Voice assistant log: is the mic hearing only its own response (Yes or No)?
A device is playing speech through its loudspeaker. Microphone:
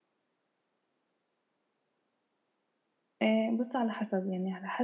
No